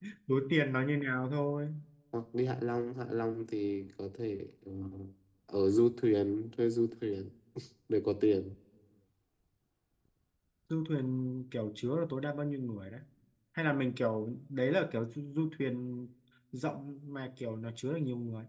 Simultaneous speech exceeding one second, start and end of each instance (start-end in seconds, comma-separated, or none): none